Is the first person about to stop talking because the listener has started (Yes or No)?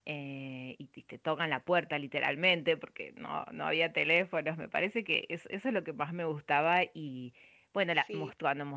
No